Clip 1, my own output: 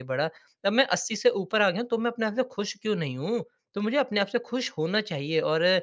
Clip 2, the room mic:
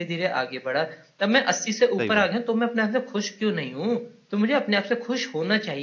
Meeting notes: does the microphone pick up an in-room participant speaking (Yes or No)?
Yes